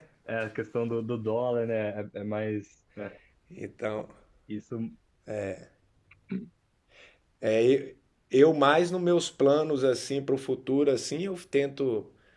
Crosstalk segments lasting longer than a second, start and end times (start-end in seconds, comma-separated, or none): none